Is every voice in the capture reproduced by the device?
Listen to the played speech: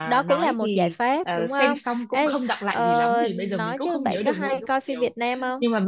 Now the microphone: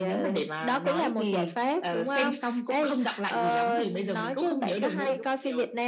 Yes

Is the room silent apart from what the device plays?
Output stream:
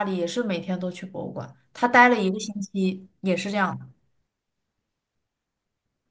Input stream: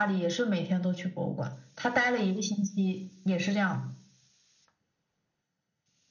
Yes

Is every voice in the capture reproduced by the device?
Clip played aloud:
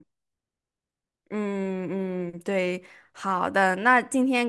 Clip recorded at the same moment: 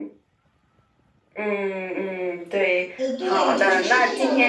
No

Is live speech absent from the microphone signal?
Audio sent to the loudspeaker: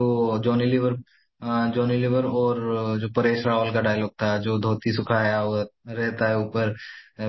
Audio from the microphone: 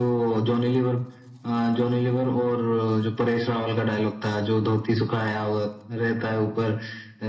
Yes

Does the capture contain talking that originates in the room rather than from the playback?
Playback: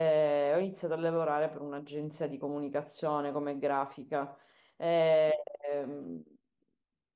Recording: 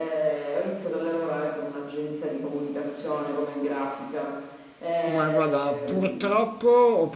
Yes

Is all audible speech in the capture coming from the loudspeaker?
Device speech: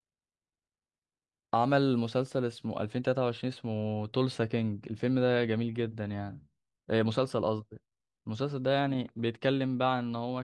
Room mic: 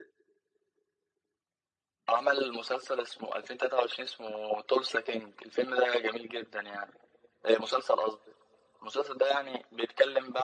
Yes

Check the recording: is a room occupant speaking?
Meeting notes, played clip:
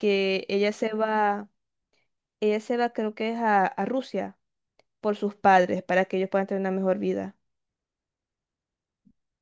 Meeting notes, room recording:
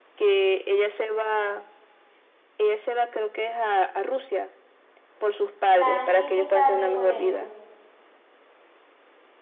Yes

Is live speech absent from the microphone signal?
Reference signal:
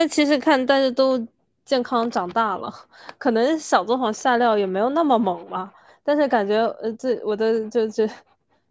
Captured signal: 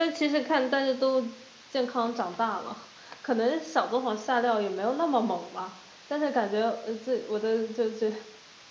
Yes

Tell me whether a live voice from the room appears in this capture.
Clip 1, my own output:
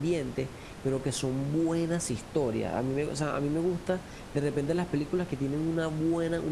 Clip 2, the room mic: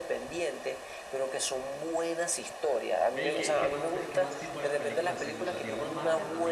Yes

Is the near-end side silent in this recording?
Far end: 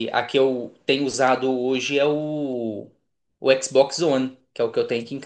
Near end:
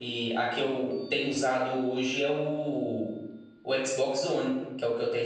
Yes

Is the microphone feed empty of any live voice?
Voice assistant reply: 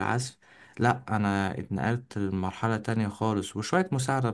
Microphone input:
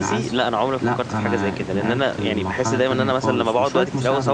No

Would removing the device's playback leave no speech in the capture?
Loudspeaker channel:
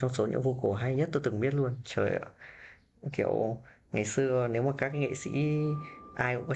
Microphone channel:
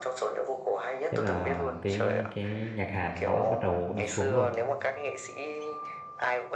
No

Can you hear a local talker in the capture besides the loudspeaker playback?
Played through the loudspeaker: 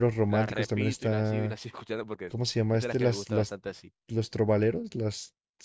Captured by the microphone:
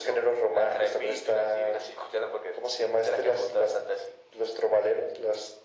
No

